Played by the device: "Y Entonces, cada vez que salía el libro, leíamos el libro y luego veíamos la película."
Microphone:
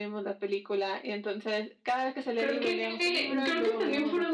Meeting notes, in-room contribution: present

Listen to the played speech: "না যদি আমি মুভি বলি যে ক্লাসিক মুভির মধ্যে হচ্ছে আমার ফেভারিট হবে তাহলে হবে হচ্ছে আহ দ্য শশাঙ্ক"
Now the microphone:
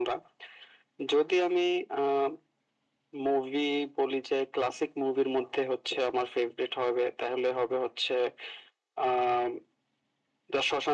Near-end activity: none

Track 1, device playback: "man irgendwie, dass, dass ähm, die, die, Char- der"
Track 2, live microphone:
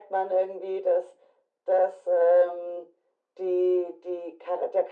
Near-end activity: none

